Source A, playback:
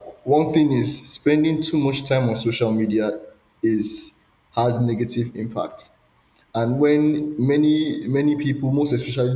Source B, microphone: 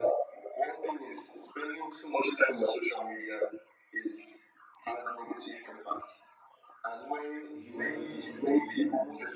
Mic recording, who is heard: both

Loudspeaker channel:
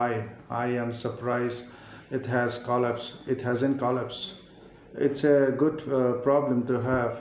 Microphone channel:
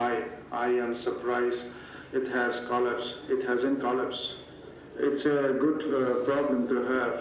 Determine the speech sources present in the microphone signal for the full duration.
echo only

